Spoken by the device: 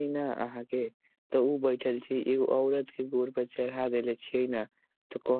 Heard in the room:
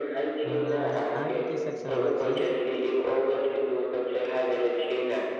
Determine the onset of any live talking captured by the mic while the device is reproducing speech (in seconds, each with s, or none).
0.5 s